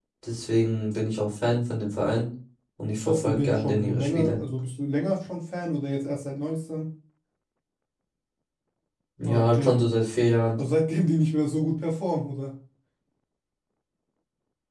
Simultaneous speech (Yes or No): Yes